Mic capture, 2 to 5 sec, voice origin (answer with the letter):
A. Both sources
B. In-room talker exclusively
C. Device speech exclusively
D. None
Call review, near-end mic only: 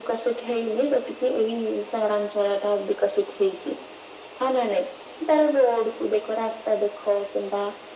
C